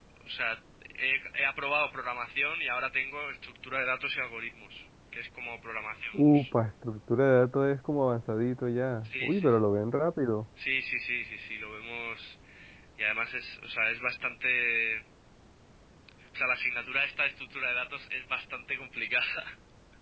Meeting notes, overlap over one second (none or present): none